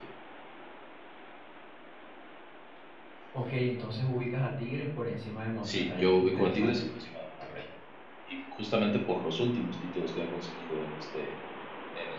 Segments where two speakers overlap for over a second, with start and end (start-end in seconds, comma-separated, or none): 5.6-6.9